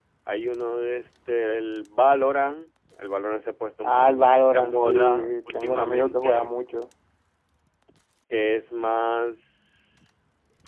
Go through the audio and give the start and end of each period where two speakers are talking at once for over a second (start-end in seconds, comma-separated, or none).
3.8-6.5